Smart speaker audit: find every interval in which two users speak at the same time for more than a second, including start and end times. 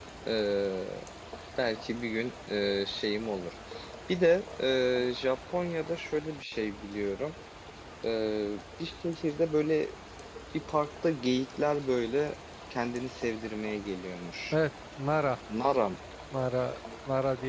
none

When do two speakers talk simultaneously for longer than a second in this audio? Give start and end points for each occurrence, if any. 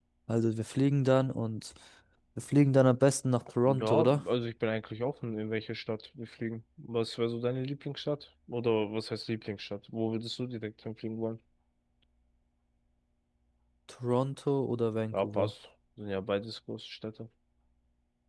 none

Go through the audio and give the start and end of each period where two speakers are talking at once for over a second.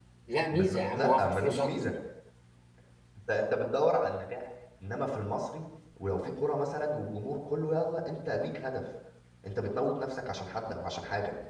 0.5-1.7

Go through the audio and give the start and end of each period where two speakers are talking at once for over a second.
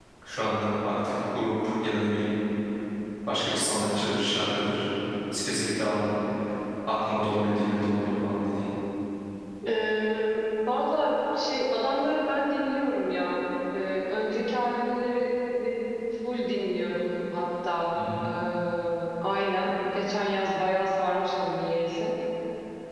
none

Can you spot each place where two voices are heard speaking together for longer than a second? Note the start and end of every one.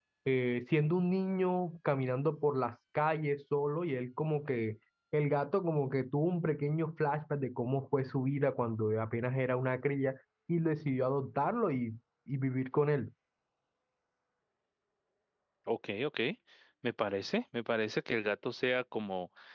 none

